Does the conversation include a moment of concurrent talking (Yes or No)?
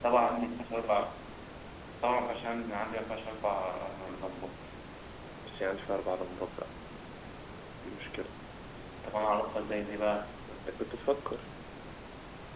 No